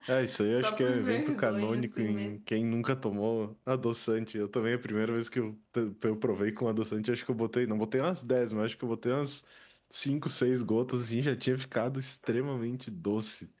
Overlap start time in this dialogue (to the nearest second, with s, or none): 1 s